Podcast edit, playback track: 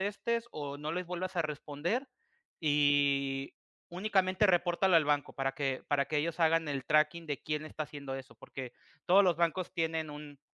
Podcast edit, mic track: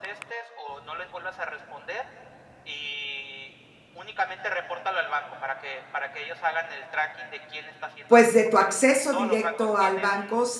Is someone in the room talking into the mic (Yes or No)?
Yes